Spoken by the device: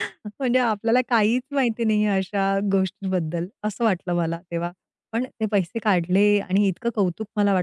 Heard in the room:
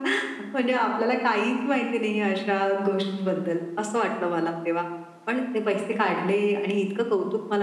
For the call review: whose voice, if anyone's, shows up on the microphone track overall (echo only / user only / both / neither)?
echo only